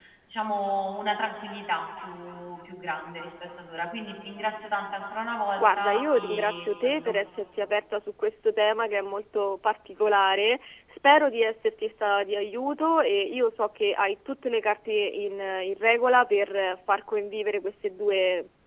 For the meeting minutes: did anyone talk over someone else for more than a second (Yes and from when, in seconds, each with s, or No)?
Yes, from 5.6 s